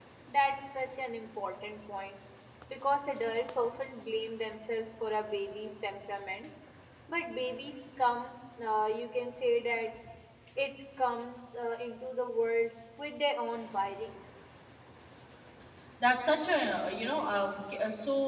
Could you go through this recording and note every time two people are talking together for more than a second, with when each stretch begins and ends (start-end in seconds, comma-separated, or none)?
none